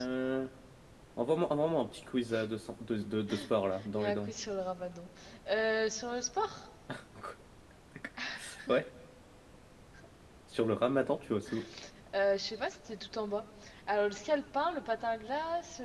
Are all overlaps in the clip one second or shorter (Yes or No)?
Yes